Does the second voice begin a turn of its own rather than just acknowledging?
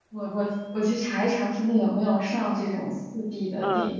Yes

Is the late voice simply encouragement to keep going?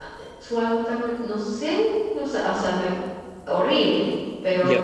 Yes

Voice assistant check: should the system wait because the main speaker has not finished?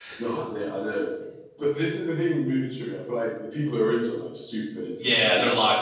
No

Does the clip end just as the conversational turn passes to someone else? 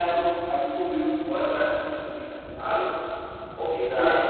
No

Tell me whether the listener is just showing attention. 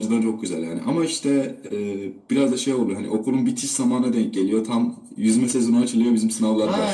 No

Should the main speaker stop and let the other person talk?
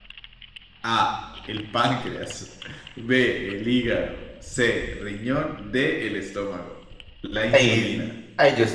Yes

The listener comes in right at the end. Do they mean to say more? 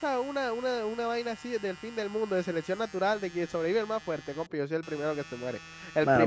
Yes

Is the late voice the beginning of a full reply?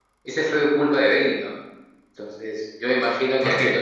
No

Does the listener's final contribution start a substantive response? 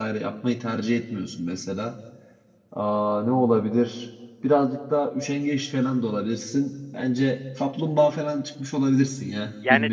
Yes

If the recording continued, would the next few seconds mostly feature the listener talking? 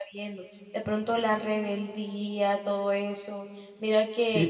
No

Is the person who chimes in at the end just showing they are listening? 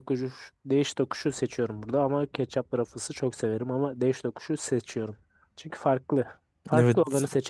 No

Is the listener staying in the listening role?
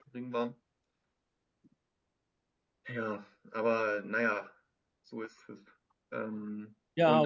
Yes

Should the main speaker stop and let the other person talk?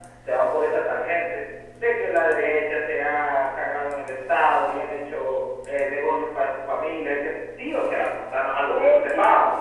Yes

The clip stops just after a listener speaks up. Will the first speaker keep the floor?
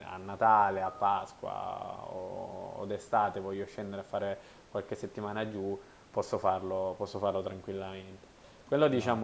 Yes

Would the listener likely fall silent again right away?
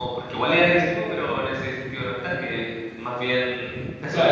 No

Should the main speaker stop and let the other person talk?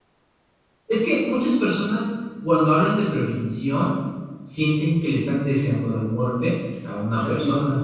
Yes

